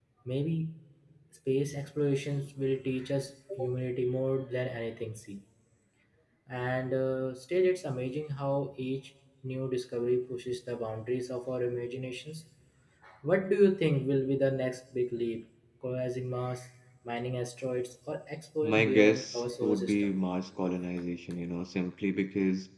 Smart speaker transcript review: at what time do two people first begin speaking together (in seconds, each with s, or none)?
18.6 s